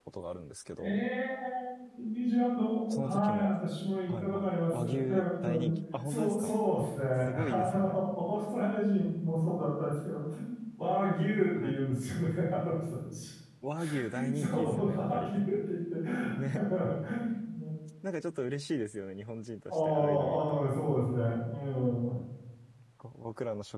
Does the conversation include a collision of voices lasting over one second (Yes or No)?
Yes